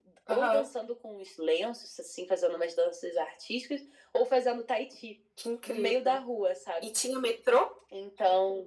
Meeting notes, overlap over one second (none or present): none